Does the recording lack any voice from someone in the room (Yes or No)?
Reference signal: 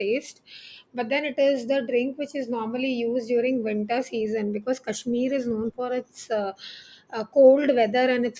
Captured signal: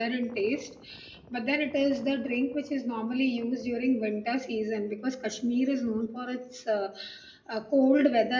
Yes